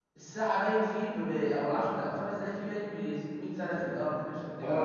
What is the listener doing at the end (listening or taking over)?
taking over